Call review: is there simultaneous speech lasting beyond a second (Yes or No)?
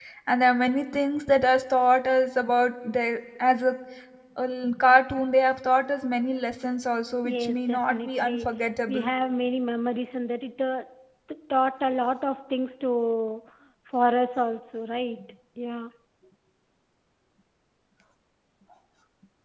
Yes